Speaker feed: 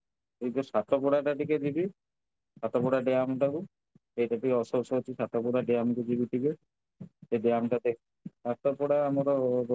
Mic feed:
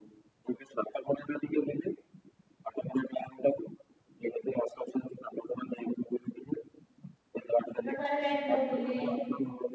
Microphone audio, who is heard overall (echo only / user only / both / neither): both